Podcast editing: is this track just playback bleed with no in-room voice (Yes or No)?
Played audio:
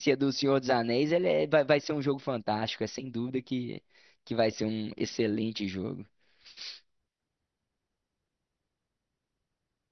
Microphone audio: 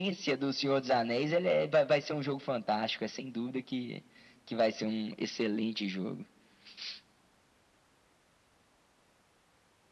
Yes